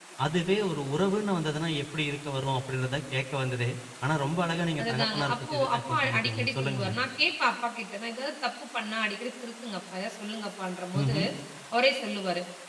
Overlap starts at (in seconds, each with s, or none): 4.8 s